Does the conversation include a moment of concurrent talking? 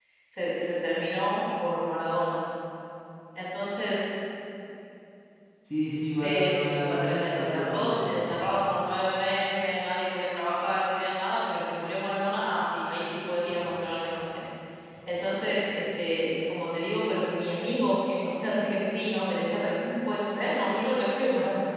Yes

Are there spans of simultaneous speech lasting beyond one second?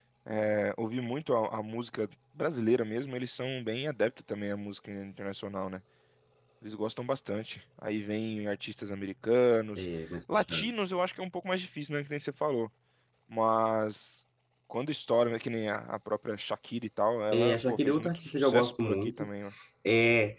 Yes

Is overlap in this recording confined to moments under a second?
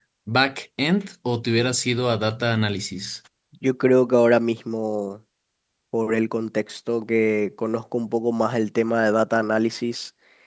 Yes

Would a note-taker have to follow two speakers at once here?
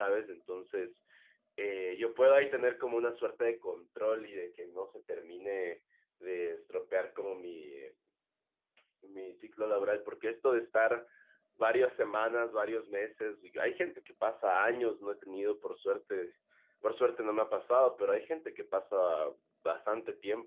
No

